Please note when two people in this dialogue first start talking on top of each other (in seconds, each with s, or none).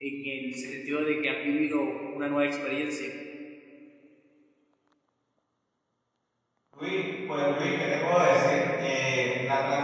none